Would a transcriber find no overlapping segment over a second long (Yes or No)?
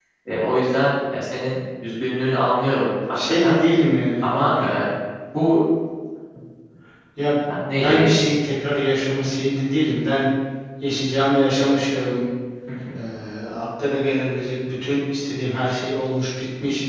Yes